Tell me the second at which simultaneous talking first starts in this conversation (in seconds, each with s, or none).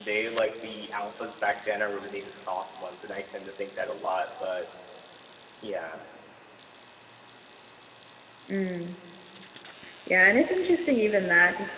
none